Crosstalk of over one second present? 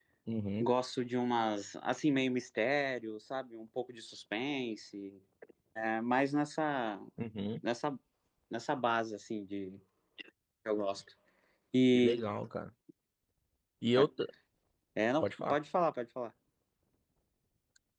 No

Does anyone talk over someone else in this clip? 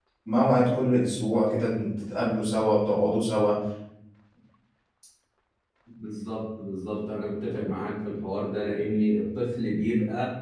No

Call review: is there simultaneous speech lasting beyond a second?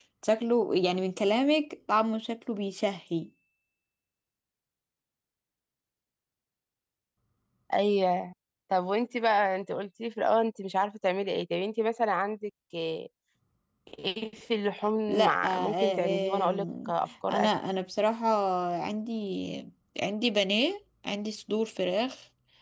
Yes, from 15.1 s

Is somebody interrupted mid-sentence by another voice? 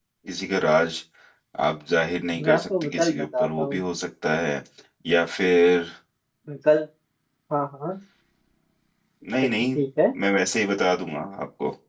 Yes, from 2.4 s

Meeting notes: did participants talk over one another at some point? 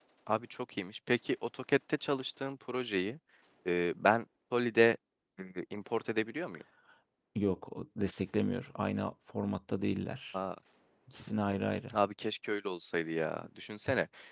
No

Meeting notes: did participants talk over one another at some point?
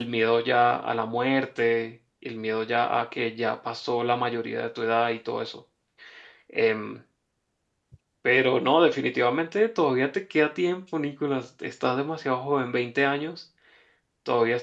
No

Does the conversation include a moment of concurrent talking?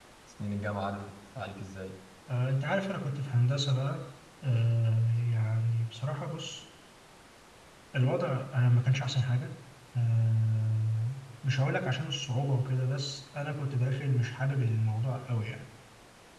No

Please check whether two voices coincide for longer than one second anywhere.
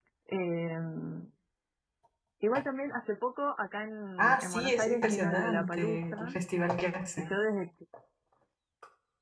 Yes, from 4.2 s

